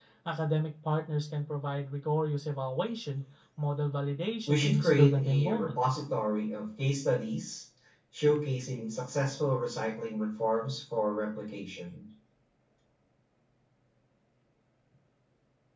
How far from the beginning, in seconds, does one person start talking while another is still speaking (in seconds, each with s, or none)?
4.5 s